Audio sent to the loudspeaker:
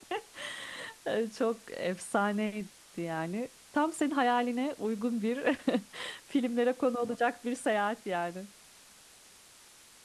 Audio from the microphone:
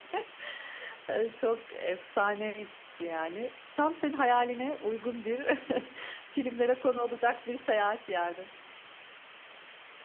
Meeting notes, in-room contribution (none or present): none